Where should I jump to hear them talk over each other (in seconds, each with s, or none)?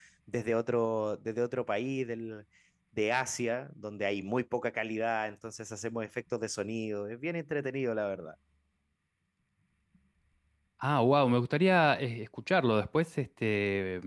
none